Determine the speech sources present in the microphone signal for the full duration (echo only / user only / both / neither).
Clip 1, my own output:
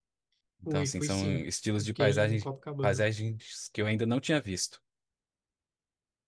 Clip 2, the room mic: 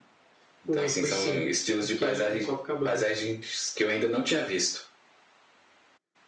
echo only